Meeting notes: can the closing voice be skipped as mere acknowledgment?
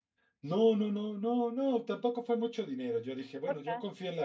Yes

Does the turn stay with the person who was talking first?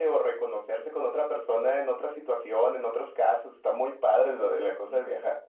No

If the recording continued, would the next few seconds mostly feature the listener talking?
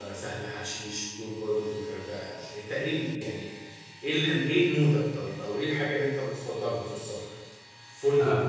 No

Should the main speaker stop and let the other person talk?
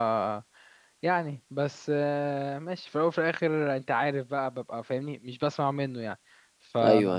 Yes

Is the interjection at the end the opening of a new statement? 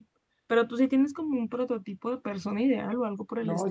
Yes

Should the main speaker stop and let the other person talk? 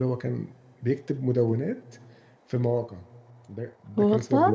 No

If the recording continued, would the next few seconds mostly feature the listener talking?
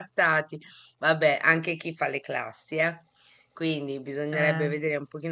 No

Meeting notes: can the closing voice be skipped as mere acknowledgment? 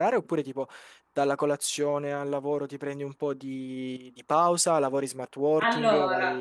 No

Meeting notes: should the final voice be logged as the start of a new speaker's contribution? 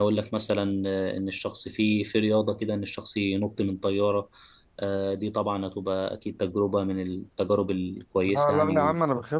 Yes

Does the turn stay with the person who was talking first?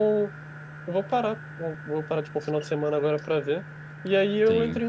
Yes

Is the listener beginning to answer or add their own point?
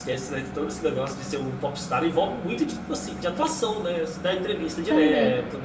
No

